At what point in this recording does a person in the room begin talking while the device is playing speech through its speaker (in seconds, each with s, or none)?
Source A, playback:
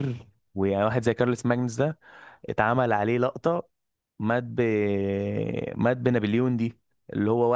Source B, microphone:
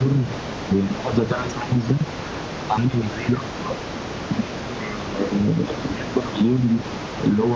none